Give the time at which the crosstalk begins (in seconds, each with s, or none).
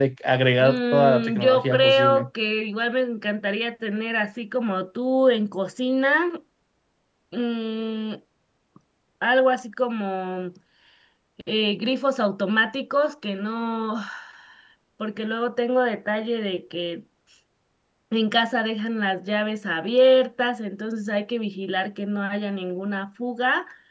0.6 s